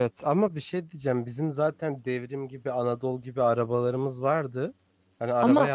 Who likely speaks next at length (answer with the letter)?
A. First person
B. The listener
A